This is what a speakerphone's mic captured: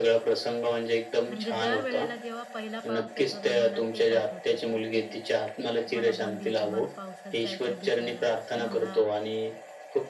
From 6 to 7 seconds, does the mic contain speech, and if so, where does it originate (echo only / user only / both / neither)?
both